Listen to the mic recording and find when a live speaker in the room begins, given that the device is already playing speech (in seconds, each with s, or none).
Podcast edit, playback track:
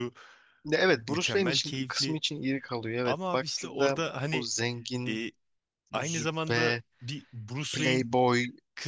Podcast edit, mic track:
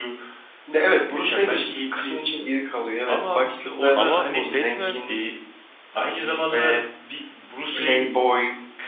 4.0 s